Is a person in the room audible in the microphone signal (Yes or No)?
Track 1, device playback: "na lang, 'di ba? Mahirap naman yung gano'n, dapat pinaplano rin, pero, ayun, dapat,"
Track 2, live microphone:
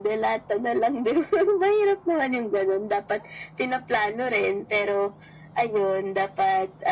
No